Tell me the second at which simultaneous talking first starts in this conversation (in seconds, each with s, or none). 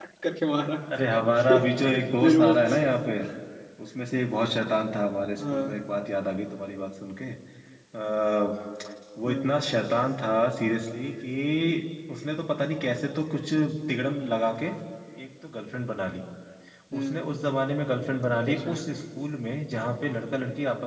1.1 s